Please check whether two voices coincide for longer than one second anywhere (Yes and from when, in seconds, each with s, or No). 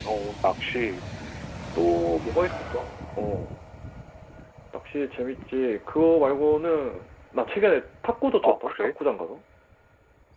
No